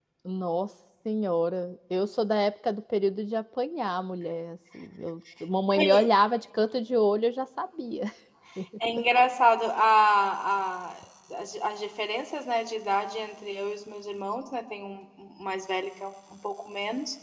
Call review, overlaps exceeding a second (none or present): none